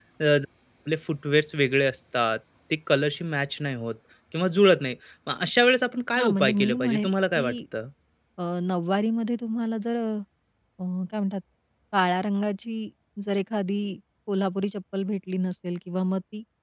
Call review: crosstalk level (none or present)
present